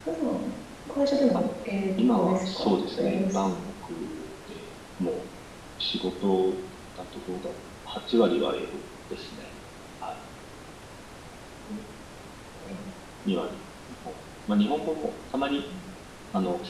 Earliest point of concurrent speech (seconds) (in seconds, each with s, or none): 2.0 s